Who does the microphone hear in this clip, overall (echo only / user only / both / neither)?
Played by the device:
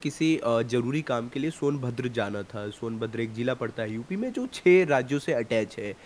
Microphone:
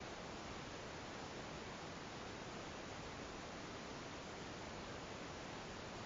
neither